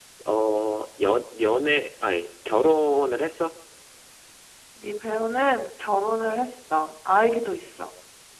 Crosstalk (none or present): none